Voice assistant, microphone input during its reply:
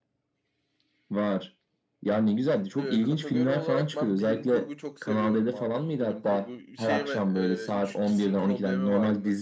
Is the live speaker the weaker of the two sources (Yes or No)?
Yes